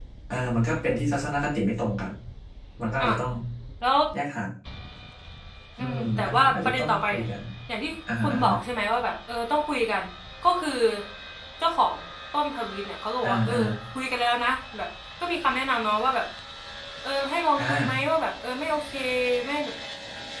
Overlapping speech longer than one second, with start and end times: 5.8-7.2

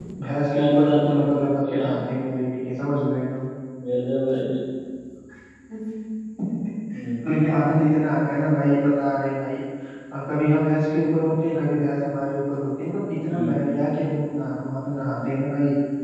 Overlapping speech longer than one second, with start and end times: 0.5-1.9

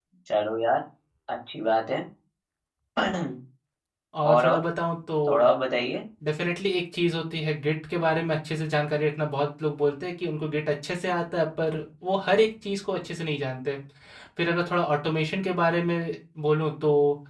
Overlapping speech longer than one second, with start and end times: none

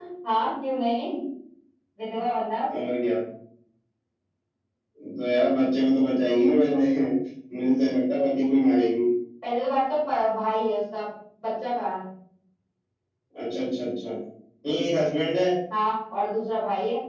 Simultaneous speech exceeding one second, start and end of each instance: none

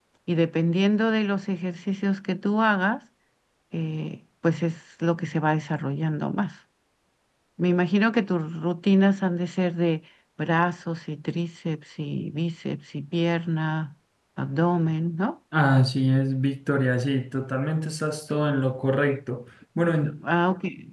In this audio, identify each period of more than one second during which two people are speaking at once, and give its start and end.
none

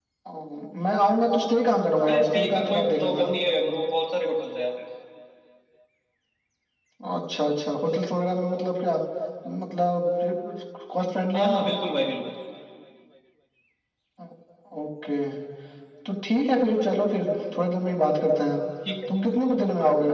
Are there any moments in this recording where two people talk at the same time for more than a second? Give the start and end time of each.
2.1-3.3

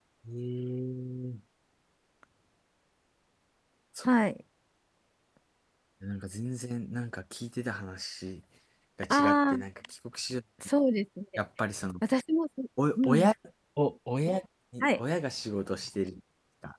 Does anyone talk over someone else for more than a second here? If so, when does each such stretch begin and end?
none

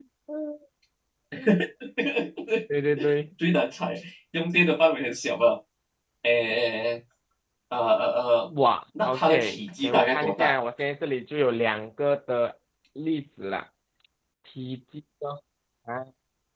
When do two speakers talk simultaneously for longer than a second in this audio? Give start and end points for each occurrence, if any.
9.0-10.5

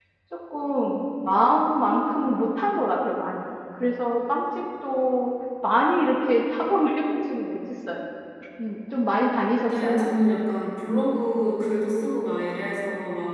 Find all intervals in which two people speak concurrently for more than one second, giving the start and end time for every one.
none

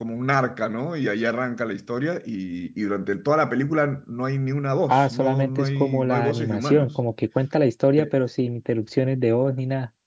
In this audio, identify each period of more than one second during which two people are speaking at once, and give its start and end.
4.9-6.9

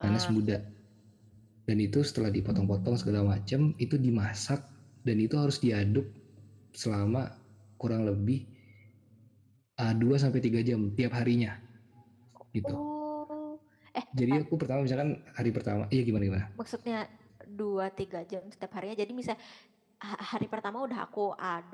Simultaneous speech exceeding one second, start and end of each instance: none

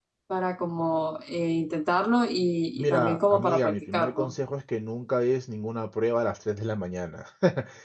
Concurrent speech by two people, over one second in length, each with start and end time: 2.8-4.3

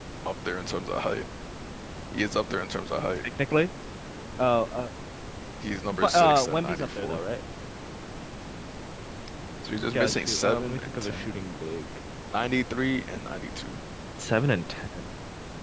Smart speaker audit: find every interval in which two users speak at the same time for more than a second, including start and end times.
5.9-7.2, 9.9-11.3

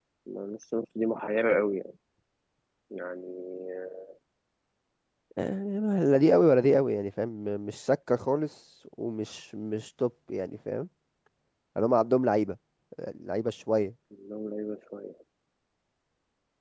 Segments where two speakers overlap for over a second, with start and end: none

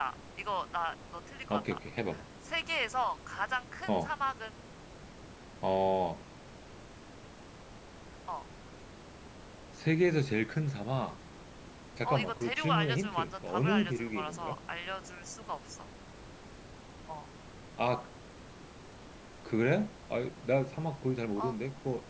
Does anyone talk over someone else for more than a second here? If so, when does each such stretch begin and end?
12.0-14.6

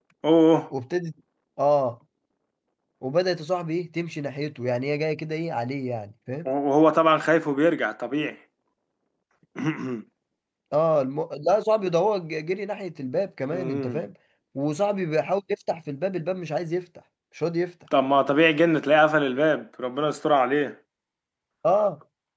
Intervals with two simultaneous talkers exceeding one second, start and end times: none

